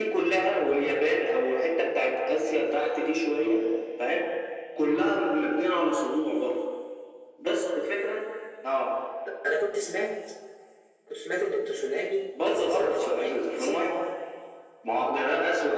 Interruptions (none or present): present